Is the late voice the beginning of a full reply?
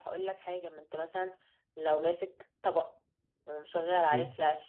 No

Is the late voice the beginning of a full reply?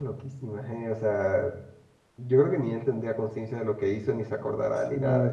Yes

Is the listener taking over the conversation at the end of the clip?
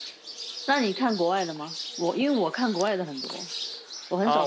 Yes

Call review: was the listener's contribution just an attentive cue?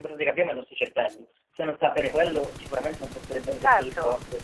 No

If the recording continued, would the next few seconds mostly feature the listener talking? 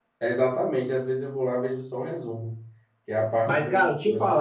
Yes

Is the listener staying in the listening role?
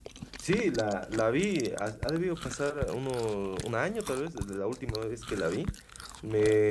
Yes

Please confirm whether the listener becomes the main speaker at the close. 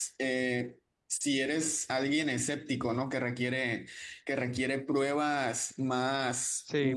Yes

